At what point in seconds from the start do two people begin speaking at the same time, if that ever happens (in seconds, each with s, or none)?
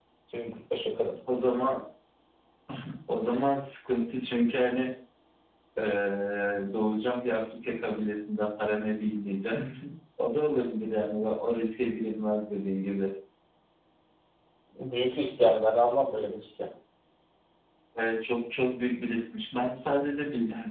none